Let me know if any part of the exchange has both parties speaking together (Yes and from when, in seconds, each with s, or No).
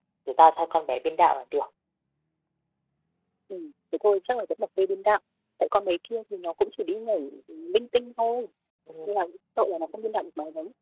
No